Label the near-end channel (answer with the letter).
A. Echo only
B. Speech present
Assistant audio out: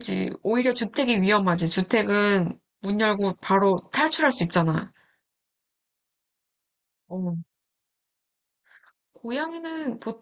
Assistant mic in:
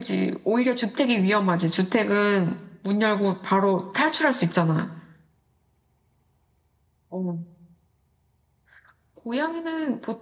A